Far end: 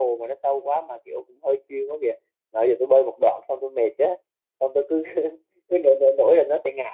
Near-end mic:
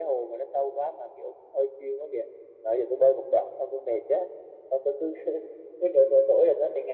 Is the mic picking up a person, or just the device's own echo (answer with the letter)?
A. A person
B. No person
B